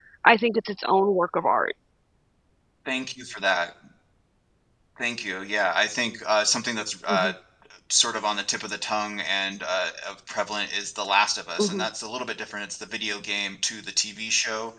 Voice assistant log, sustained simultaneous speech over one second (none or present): none